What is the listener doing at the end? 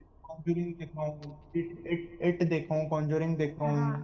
taking over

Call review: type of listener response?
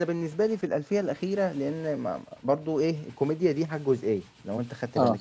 listening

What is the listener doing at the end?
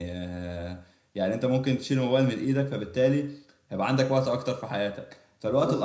listening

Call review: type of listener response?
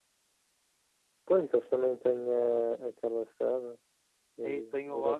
taking over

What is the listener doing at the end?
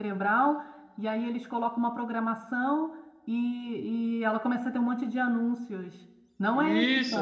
taking over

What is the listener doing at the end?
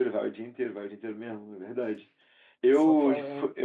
listening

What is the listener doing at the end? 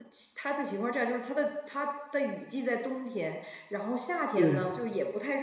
listening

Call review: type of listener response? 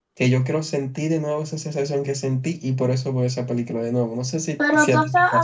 taking over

